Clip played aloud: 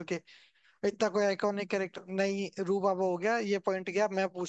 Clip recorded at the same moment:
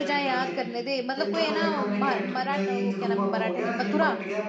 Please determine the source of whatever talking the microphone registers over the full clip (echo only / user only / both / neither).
both